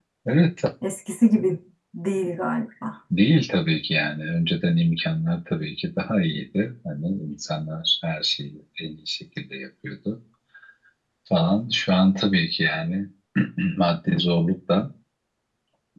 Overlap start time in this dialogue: none

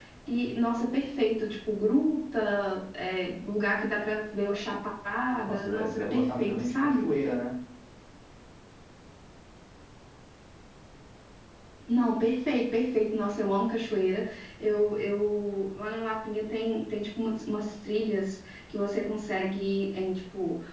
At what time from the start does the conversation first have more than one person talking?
5.4 s

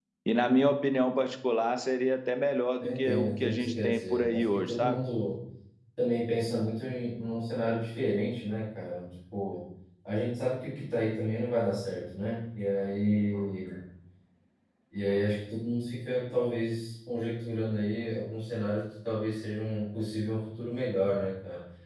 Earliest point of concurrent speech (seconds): 2.8 s

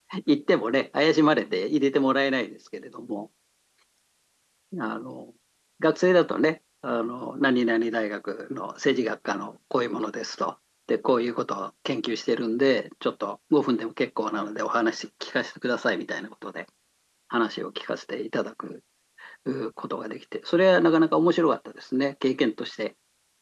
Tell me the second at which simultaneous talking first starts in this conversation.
none

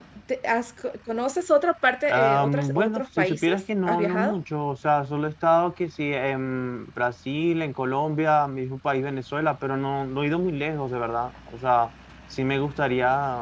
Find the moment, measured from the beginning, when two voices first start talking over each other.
2.0 s

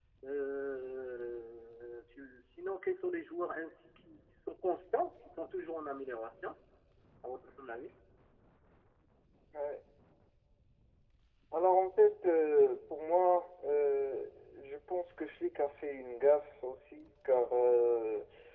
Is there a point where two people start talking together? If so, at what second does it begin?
none

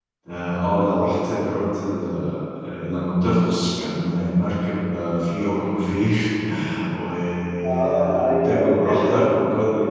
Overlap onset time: 7.7 s

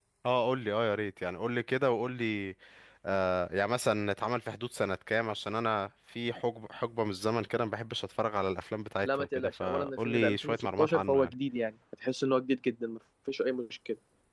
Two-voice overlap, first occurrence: 9.0 s

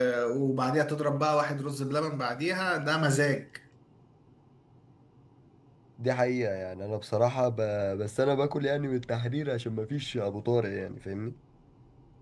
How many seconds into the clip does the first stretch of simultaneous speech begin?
none

